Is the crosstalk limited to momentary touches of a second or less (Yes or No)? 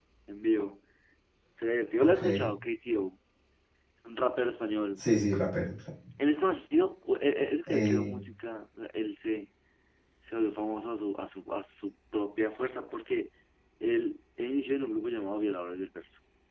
Yes